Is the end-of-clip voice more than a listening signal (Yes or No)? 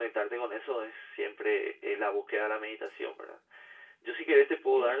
No